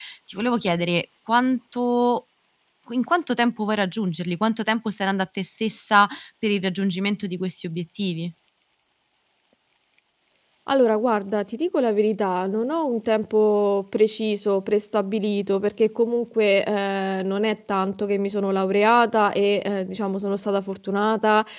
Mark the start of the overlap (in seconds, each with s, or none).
none